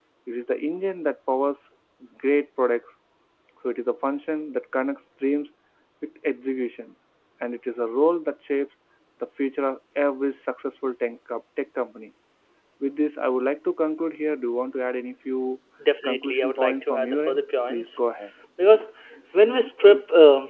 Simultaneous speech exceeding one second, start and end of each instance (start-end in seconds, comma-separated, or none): 16.0-18.0